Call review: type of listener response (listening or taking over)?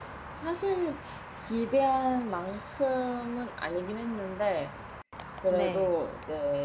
listening